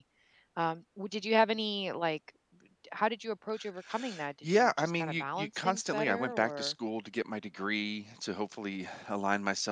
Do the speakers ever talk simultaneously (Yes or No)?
Yes